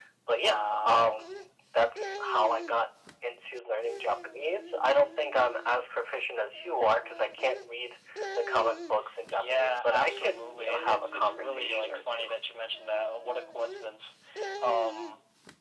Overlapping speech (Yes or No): Yes